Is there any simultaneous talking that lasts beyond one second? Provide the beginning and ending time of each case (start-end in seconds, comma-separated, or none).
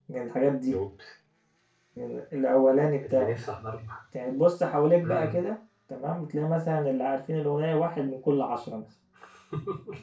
none